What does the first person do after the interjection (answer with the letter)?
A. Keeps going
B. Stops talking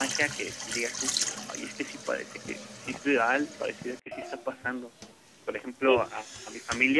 A